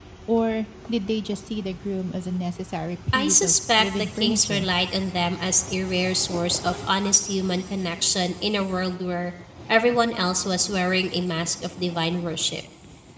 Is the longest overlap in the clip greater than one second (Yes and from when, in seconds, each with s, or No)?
Yes, from 3.1 s